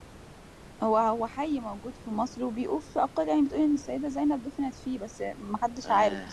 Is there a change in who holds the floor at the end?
Yes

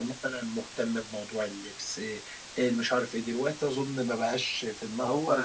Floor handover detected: Yes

